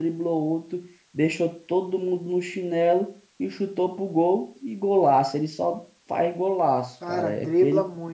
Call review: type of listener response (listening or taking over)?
taking over